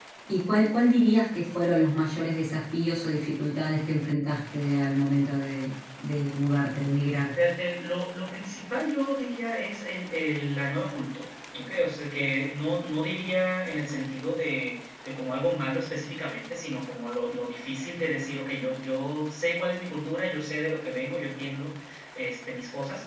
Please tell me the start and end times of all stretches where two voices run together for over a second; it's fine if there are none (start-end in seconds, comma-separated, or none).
none